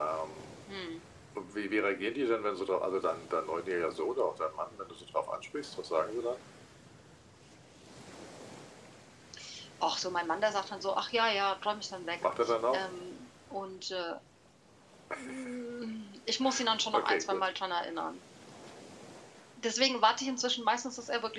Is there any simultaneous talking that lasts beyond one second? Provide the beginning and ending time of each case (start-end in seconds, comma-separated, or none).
none